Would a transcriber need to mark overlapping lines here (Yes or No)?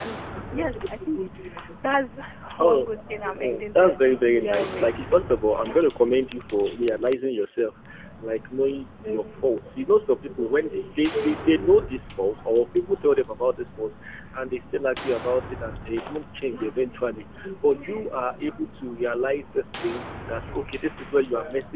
Yes